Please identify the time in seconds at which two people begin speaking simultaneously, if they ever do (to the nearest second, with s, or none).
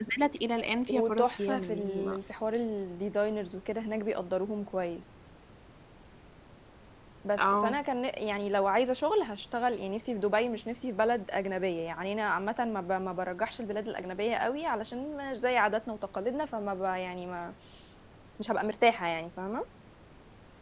1 s